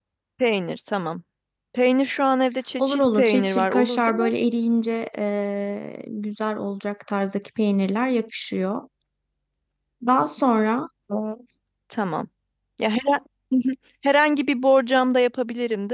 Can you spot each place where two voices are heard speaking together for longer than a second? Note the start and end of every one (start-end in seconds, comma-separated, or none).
2.8-4.3